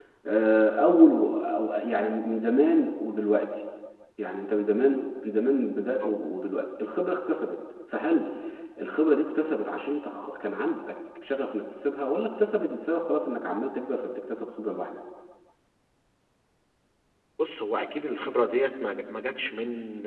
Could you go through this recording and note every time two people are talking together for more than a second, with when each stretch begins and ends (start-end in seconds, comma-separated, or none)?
none